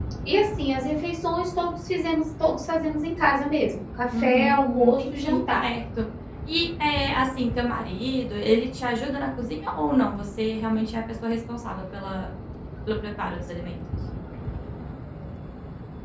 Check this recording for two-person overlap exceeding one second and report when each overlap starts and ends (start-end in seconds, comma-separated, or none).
4.2-5.6